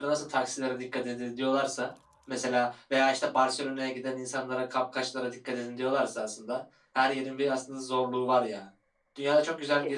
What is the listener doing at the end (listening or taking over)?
listening